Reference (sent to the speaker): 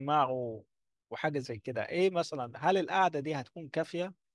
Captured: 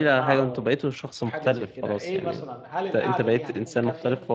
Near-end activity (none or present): present